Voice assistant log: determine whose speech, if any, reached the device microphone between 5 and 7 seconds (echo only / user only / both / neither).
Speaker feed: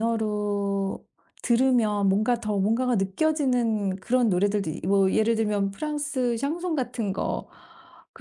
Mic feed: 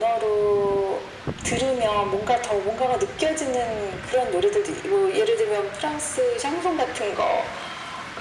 echo only